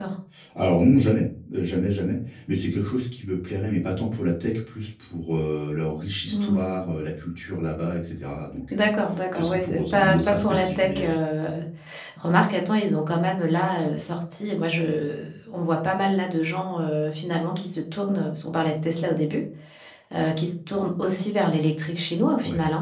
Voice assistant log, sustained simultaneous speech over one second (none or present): present